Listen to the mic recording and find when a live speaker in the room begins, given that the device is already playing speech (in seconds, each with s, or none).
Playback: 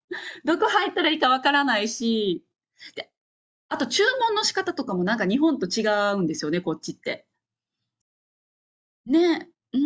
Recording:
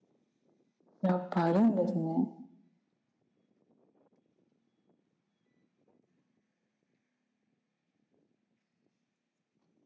1.0 s